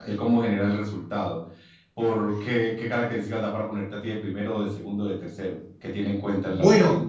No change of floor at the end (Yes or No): No